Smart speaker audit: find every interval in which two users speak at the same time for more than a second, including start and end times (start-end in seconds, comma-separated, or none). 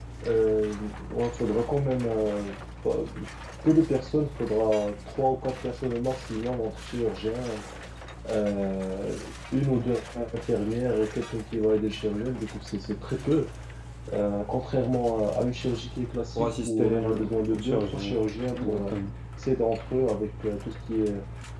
16.4-18.1